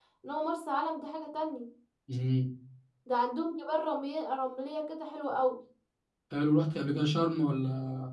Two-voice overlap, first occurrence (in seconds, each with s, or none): none